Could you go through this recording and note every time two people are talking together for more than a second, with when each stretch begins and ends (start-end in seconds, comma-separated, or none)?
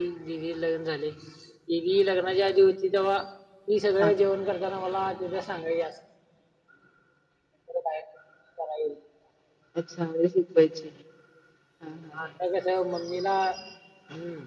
none